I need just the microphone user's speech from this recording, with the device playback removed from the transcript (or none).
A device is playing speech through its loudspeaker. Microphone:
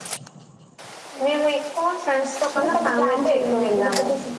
none